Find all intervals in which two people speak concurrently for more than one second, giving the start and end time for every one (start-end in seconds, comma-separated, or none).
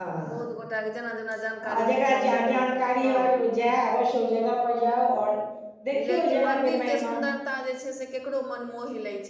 1.8-3.1, 5.9-7.1